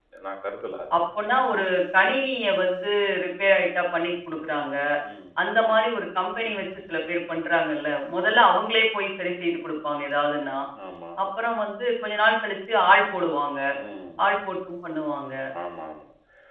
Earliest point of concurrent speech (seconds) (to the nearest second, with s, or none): none